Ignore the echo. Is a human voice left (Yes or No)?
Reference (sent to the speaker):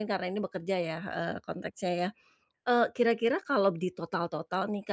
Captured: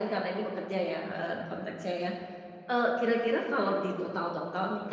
No